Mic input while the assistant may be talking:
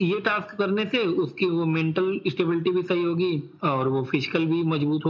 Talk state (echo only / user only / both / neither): echo only